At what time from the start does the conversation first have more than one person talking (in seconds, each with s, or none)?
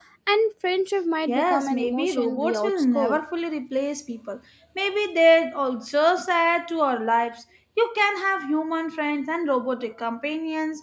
1.3 s